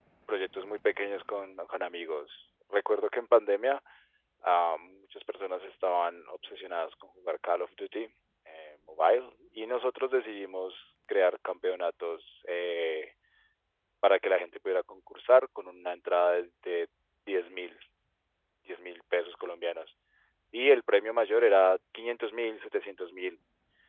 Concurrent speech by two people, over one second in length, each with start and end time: none

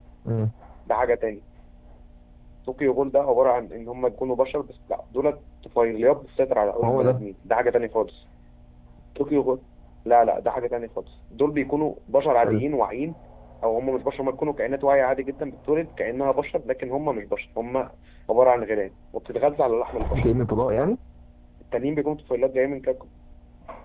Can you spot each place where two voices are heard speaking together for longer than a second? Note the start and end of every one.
none

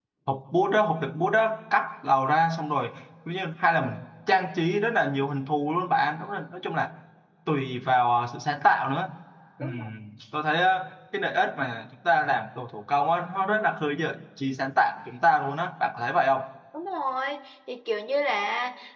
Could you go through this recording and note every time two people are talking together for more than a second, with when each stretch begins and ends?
none

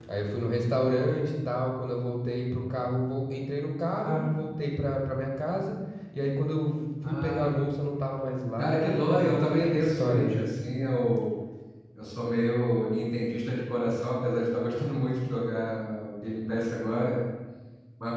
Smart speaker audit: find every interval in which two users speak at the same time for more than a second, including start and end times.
8.6-10.4

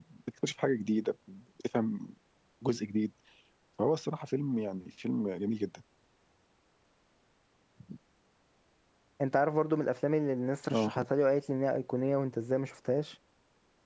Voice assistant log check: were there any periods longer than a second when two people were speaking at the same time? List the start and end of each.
none

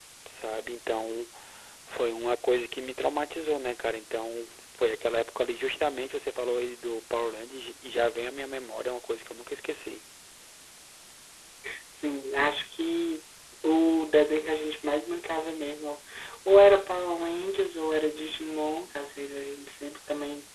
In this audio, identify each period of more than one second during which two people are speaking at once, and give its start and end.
none

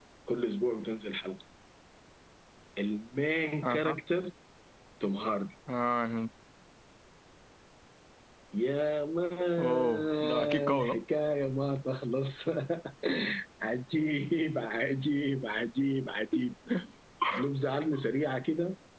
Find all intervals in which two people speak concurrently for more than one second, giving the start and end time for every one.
9.6-11.0

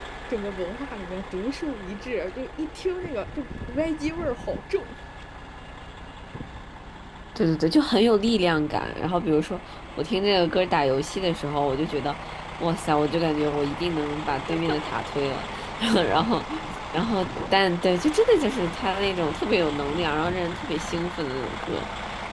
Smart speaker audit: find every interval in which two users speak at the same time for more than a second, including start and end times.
none

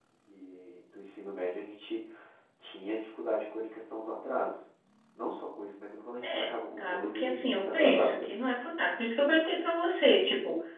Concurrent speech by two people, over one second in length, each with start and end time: 6.3-8.3

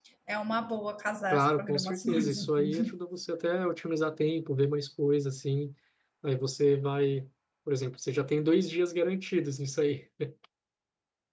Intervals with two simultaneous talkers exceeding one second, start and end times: 1.3-3.0

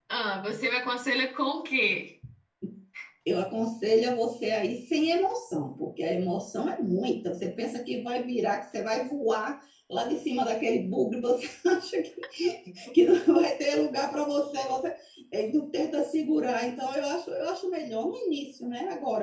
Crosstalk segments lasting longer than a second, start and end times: none

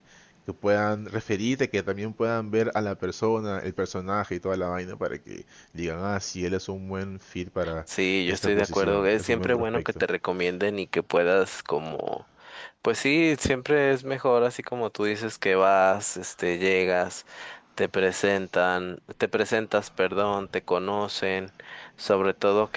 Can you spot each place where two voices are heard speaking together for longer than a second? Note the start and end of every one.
8.3-10.0

